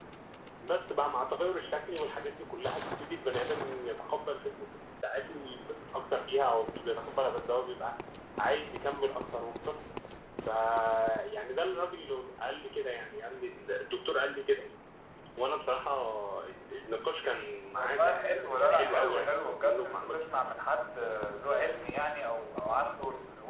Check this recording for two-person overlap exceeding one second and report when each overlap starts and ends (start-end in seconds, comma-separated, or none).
17.8-20.5